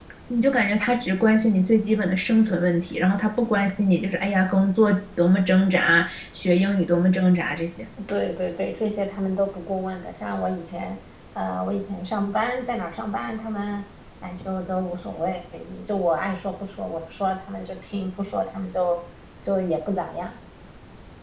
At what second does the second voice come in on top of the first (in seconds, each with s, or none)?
none